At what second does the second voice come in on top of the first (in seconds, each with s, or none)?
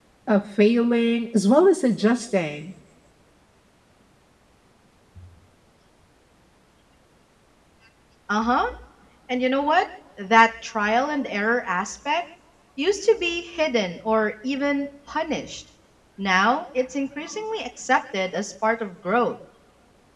none